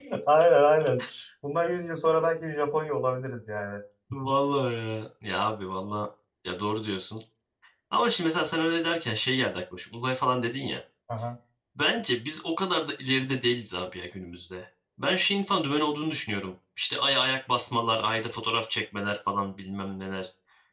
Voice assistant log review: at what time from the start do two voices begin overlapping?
none

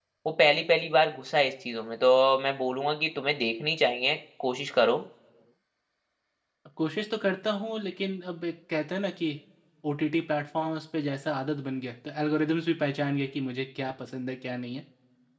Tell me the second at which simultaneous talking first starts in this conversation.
none

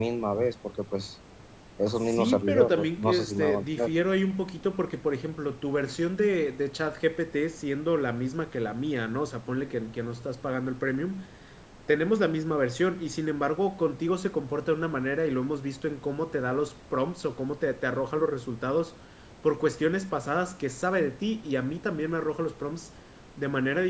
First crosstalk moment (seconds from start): 2.0 s

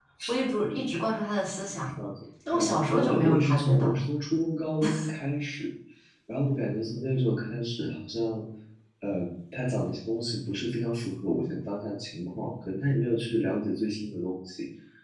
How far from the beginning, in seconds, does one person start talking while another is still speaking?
2.5 s

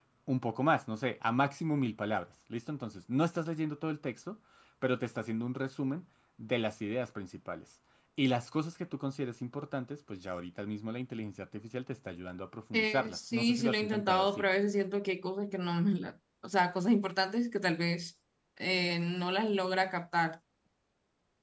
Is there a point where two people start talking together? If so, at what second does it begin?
12.7 s

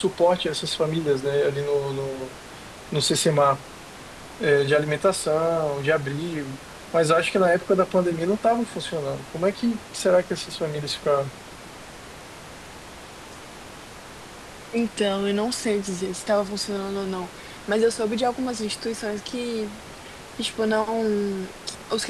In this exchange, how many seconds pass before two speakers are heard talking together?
none

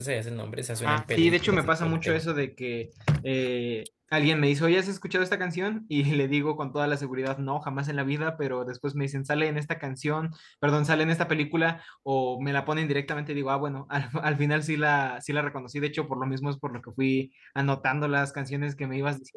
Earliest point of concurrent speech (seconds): 0.8 s

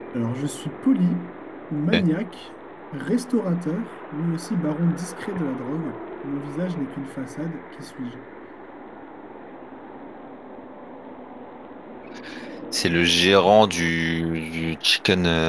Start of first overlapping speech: none

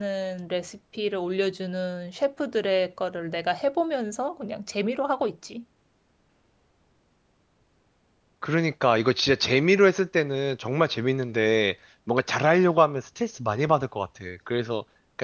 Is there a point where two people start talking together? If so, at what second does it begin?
none

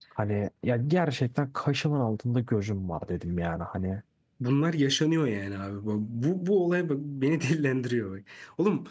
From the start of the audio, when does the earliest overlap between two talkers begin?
none

